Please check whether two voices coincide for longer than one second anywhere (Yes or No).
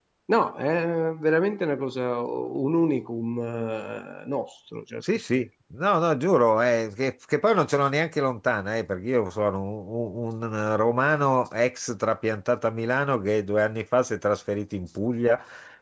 No